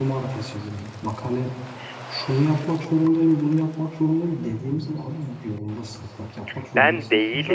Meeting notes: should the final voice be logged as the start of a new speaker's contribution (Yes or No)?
No